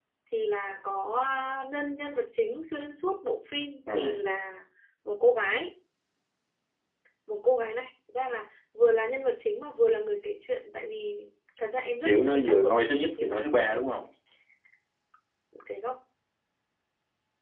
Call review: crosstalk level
present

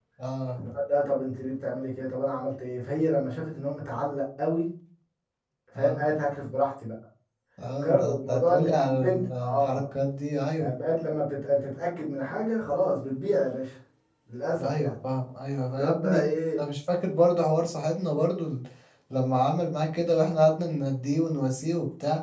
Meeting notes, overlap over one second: present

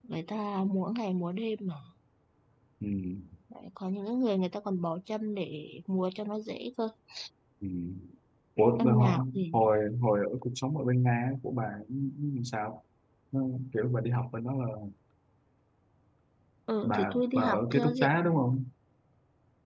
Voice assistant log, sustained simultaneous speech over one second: present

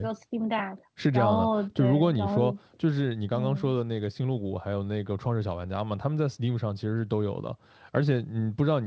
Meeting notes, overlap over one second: present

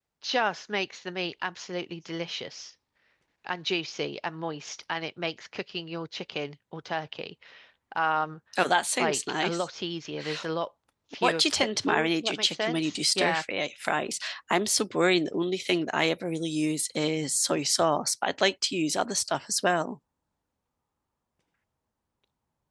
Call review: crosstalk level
present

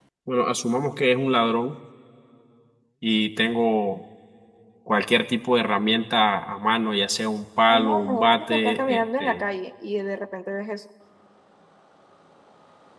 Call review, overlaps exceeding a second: present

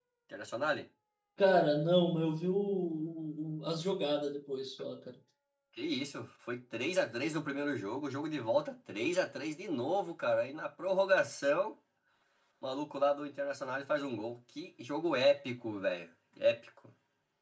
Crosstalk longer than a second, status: none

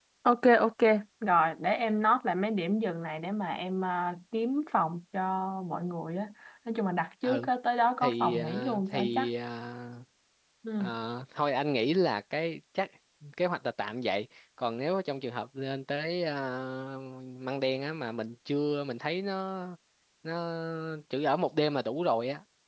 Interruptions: present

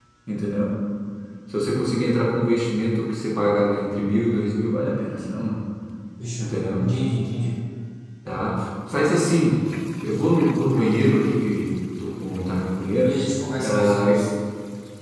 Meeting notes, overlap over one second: none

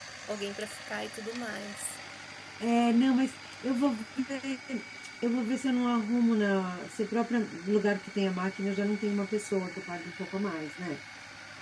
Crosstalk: none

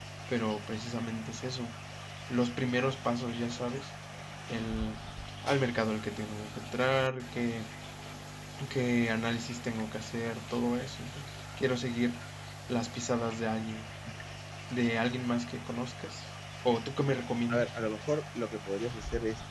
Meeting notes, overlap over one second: none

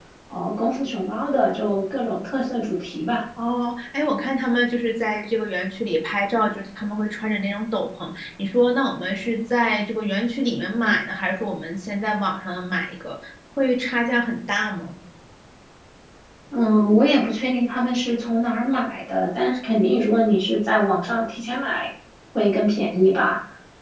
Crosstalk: none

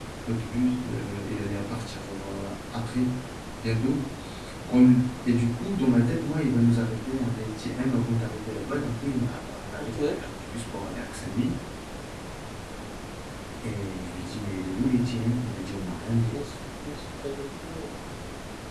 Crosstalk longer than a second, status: none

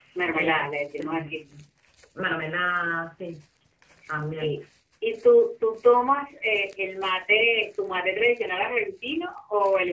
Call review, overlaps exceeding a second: none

